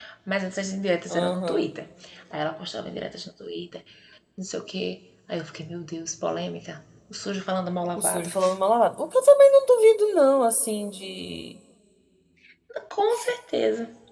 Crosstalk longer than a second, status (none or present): none